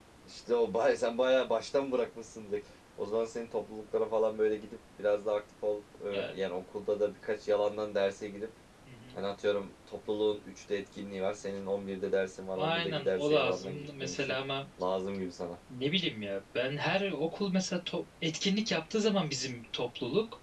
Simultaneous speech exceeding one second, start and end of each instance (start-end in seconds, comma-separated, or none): 12.6-14.4